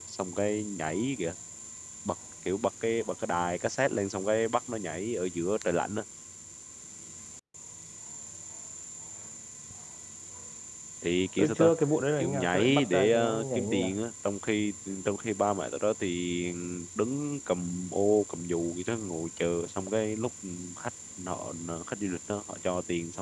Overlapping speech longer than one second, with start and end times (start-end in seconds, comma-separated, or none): 12.2-14.0